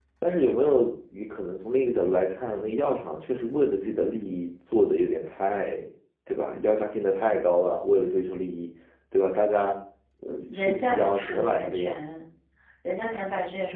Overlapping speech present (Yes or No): Yes